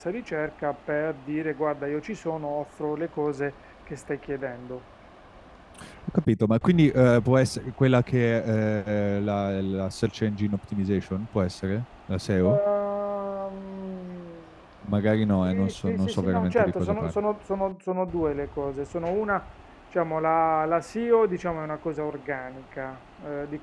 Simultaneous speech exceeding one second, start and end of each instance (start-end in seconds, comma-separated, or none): 15.4-17.2